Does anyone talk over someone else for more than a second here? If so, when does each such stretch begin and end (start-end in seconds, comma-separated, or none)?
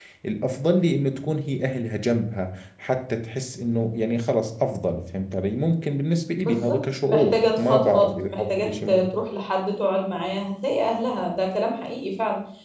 6.4-9.1